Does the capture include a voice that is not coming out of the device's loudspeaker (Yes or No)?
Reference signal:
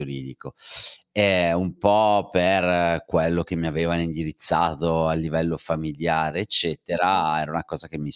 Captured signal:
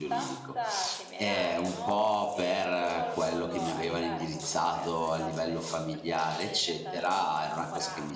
Yes